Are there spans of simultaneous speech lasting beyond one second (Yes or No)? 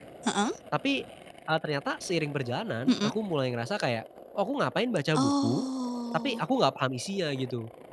No